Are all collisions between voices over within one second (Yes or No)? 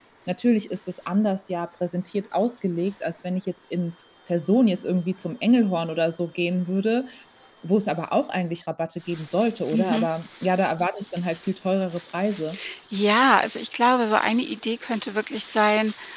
Yes